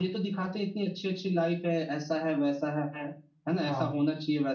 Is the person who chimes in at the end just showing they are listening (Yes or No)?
Yes